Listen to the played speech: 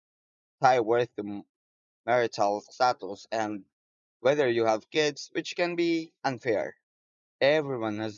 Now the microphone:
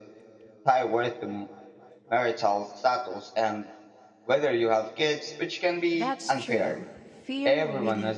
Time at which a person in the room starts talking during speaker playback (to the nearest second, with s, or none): 6 s